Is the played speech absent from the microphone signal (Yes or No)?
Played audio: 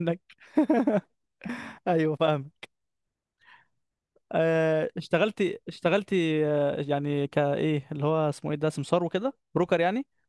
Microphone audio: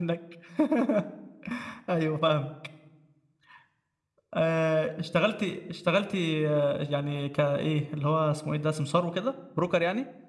No